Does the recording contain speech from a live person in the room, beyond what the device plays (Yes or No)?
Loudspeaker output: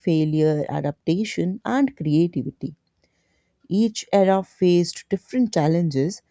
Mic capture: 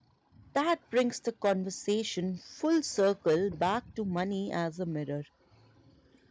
Yes